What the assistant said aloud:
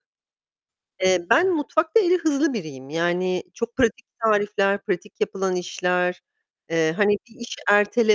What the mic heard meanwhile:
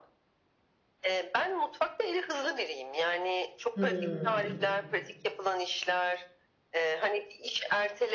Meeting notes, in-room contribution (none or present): present